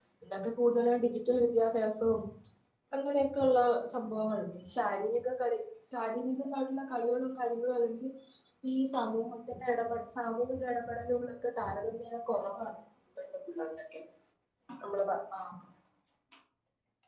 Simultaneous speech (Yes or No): No